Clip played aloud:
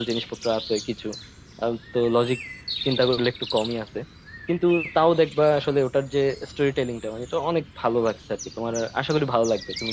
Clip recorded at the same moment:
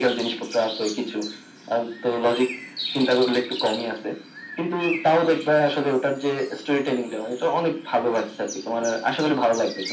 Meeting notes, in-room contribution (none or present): none